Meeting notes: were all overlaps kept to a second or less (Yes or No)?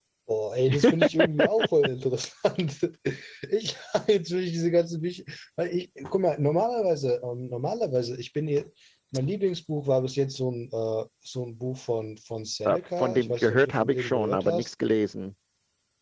No